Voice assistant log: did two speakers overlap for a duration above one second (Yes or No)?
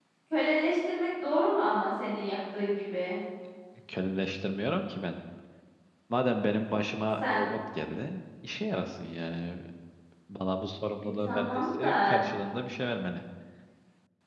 Yes